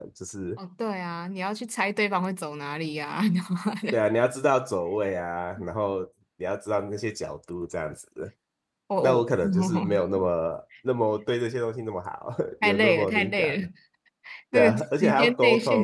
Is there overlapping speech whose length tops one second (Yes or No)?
Yes